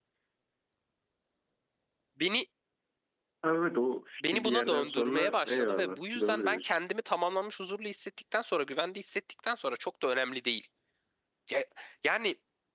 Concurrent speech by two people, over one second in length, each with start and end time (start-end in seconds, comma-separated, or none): 4.3-6.8